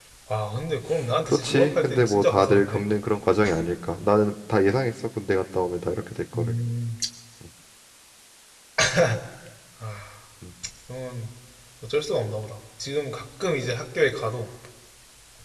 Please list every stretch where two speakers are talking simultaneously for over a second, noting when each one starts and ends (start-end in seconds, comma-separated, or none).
1.2-2.8